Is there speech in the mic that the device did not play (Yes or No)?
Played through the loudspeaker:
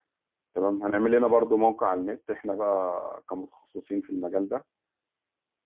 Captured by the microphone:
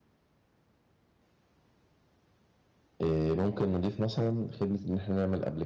Yes